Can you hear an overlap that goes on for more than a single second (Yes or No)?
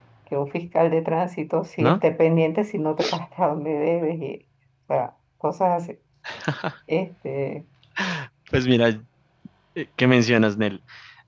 No